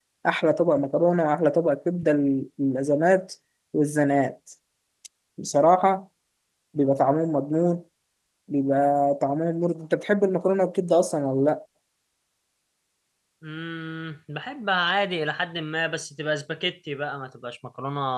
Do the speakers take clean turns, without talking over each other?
Yes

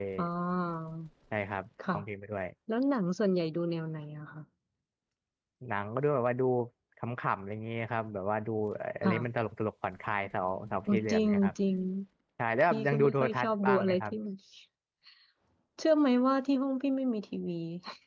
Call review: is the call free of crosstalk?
No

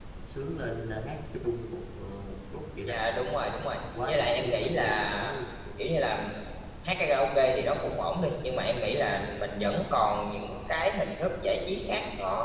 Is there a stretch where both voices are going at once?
Yes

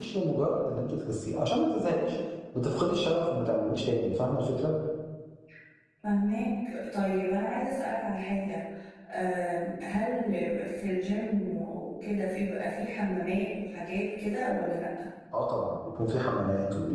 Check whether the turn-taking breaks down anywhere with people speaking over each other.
No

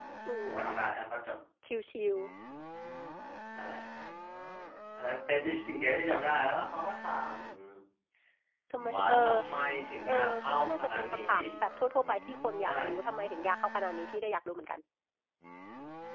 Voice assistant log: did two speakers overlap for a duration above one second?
Yes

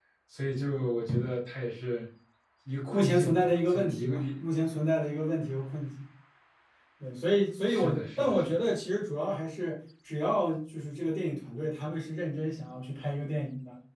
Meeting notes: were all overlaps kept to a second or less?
No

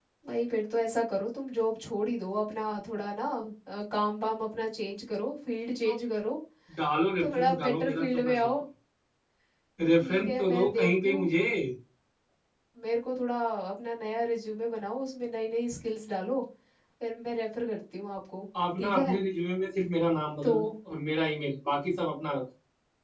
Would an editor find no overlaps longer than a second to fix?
No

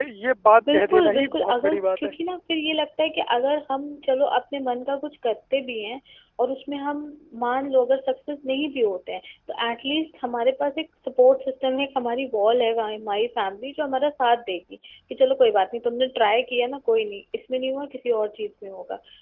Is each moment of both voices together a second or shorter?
No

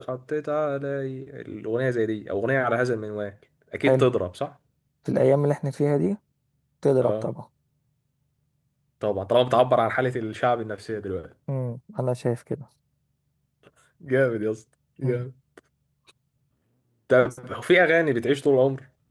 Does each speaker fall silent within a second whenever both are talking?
Yes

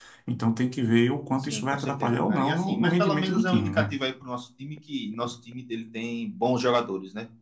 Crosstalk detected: Yes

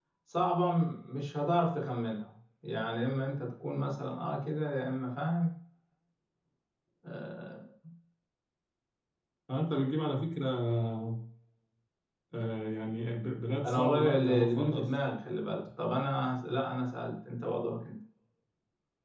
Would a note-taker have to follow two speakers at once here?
Yes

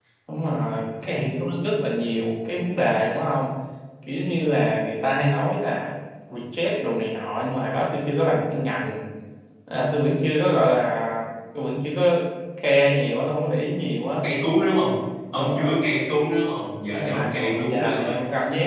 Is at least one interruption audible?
Yes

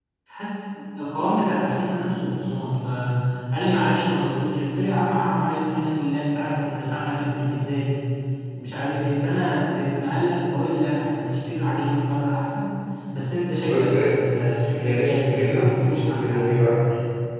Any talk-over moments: Yes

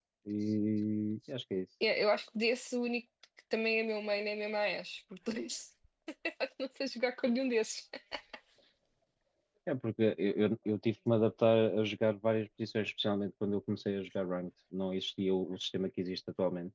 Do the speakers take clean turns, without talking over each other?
Yes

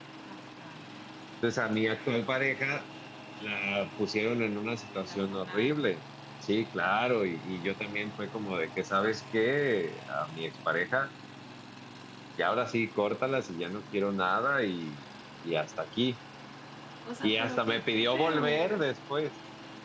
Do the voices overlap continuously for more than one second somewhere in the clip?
Yes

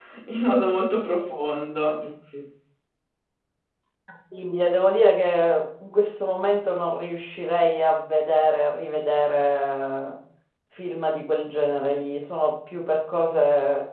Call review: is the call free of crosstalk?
Yes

